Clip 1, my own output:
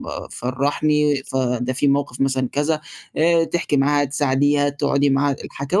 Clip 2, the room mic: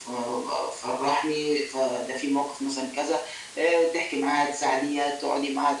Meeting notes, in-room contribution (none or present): none